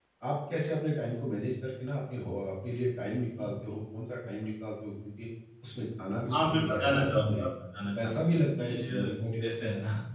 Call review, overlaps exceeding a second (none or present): present